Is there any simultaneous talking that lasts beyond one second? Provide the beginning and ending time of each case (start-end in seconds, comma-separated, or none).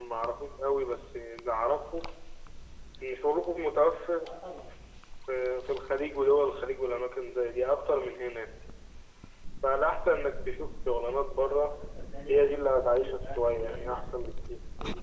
12.3-14.1